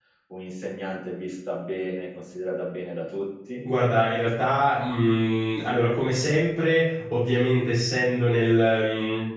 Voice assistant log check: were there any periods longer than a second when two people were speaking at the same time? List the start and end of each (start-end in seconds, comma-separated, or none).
none